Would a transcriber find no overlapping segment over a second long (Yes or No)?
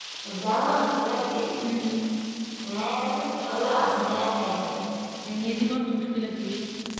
Yes